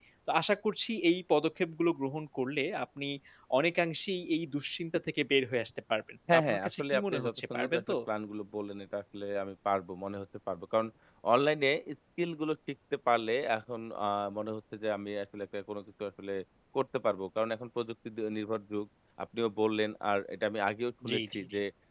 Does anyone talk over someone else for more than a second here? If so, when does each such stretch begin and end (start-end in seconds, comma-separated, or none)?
6.3-8.0